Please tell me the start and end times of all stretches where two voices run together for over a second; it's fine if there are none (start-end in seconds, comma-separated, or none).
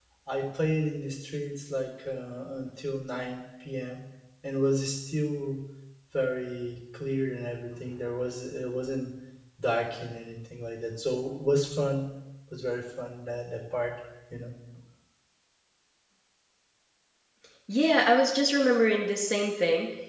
none